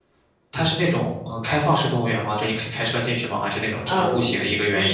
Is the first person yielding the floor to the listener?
Yes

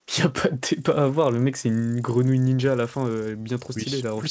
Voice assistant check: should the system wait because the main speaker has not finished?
No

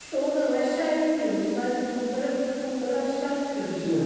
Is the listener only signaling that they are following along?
No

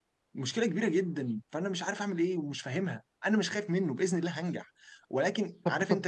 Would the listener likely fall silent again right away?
No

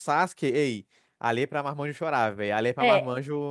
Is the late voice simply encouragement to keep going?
No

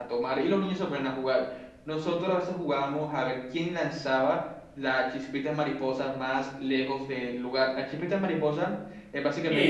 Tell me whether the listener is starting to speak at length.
Yes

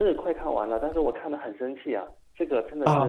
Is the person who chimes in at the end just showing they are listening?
No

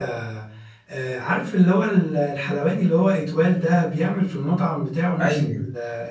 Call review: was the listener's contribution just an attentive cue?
Yes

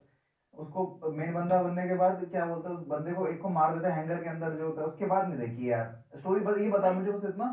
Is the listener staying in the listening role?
Yes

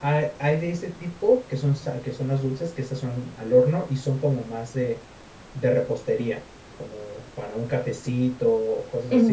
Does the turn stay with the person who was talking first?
No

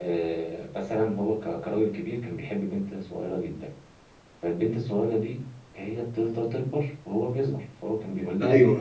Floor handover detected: No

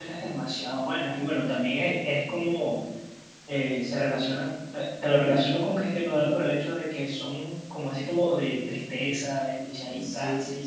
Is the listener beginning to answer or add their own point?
Yes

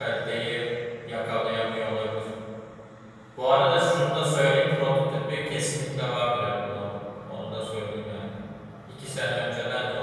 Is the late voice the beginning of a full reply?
No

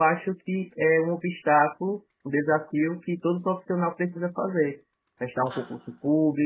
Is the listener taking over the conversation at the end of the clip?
No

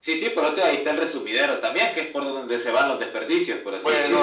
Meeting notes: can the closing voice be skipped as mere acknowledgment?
No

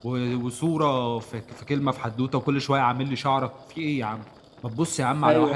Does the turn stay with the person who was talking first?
No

